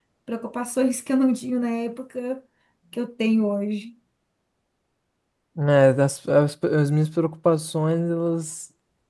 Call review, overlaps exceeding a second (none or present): none